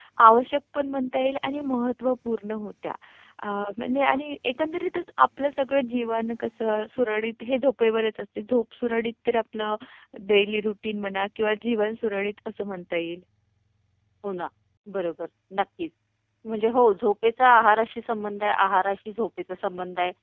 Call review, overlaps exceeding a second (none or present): none